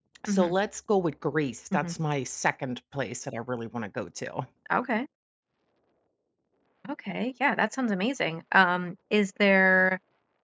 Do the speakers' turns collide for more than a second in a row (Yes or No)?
No